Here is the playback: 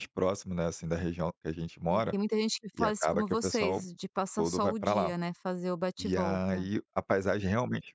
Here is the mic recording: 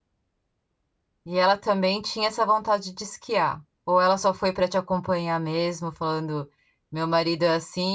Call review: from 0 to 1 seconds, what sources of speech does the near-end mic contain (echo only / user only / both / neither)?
neither